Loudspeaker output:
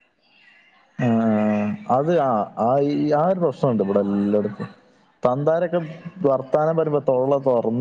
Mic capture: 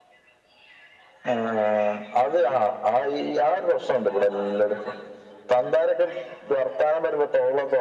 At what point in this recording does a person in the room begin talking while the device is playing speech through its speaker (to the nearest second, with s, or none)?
none